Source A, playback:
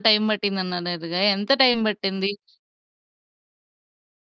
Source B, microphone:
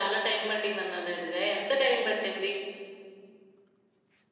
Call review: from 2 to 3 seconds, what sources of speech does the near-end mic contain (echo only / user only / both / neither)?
echo only